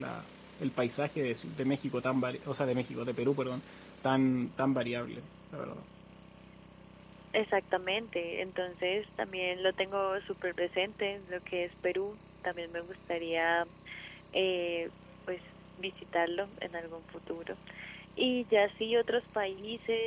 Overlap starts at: none

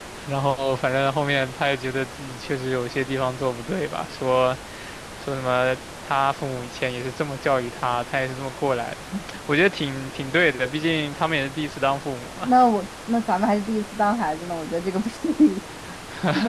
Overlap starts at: none

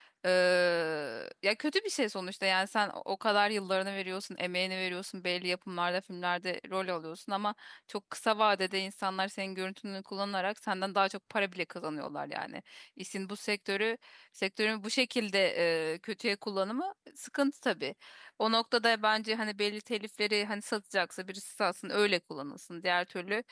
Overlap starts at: none

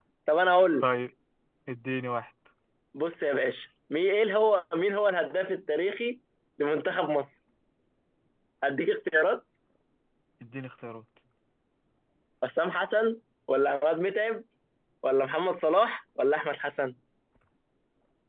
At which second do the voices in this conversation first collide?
none

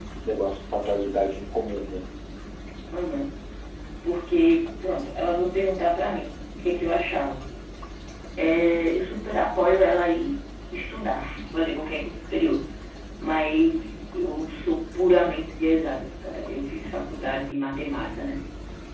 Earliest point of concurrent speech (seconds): none

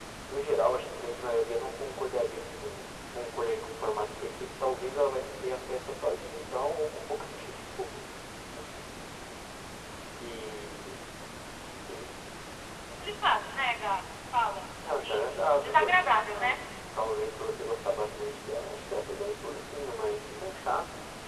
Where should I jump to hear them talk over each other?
14.8 s

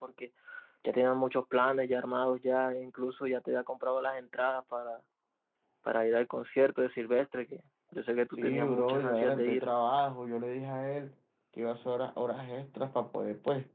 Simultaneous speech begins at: 8.4 s

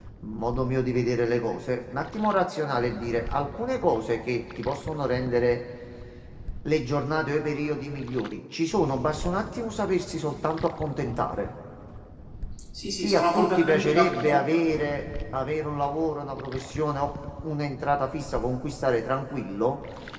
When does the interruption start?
13.0 s

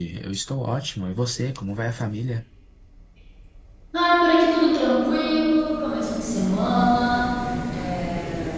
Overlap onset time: none

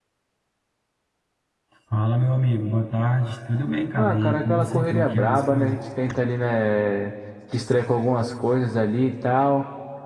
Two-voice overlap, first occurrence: 4.0 s

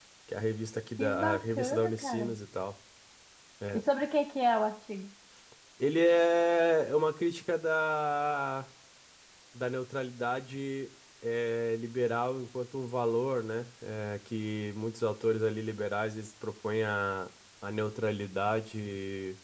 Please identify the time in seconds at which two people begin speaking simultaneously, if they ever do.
1.0 s

